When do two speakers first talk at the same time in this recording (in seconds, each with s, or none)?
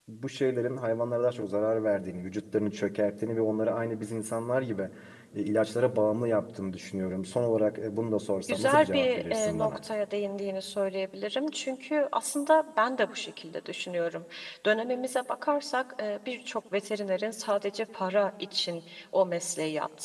8.5 s